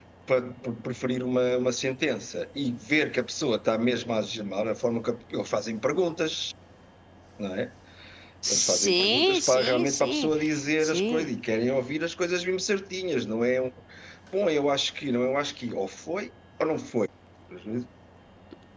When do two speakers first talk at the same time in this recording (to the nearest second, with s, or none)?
9 s